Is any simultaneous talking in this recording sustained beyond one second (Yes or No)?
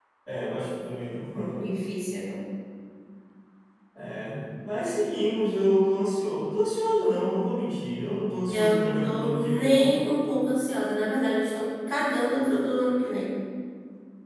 Yes